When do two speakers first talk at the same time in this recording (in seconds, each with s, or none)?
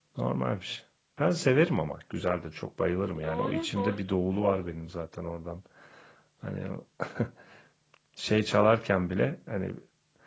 3.2 s